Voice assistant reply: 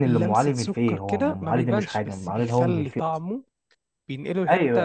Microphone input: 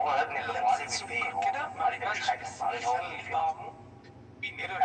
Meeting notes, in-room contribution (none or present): none